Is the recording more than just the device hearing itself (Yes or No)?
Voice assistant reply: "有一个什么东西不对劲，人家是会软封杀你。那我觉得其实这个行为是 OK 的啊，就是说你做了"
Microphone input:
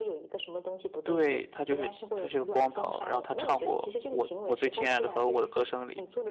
Yes